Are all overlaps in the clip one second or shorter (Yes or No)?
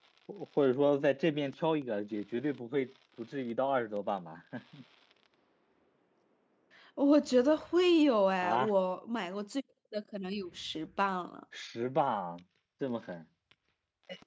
Yes